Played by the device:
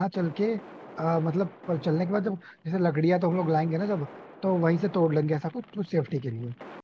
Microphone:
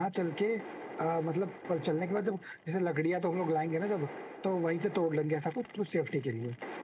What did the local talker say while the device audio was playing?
none

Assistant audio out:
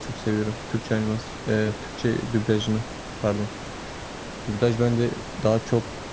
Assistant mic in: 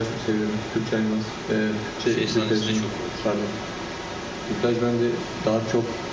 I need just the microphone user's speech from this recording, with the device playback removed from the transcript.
şey sahnesi de çok komik.

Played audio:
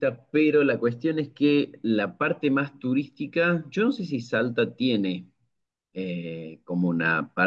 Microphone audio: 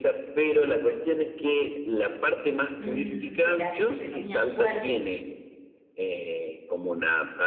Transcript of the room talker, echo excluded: mm, espérate, este no me acuerdo,

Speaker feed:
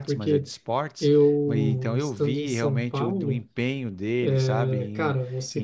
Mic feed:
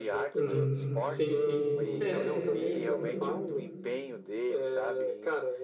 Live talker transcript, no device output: uhum. Sim, sim. É, no momento, uhum.

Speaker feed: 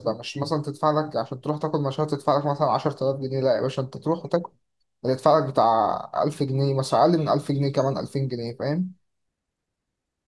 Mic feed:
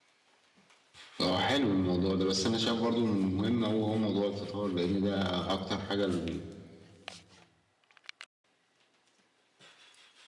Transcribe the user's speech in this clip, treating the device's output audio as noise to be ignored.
اه حلو الموضوع ده بس انا شايف برضو من المهم هو هو موضوع الفطار لان ده اكتر حاجه ال-

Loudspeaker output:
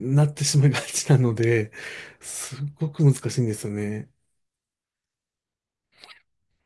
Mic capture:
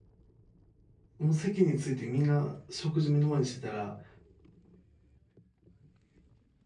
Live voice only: もう席についてみんな食事目の前にしてたら、

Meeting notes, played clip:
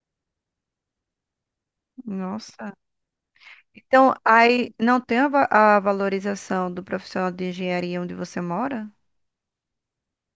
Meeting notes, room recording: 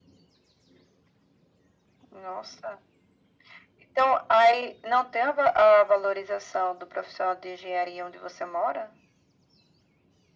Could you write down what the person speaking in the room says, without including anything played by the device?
none

